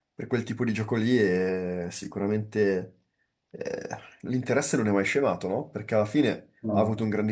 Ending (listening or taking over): listening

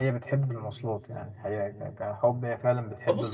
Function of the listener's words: taking over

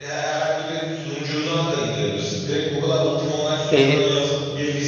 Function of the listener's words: listening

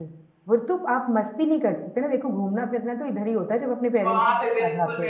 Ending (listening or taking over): taking over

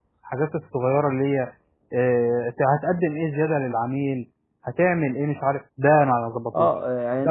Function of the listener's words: taking over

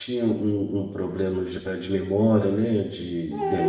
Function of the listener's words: taking over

